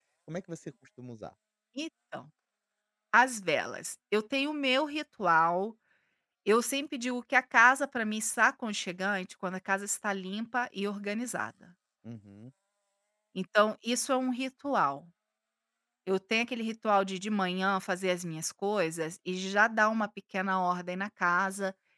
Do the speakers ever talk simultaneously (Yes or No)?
No